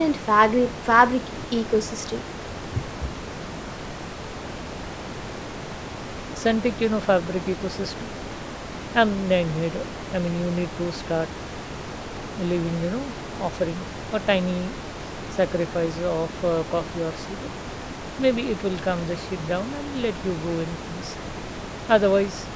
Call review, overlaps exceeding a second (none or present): none